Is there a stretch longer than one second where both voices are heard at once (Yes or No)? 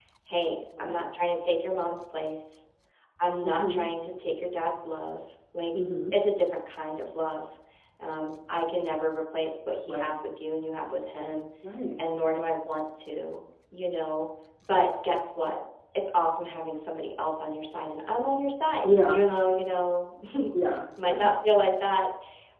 No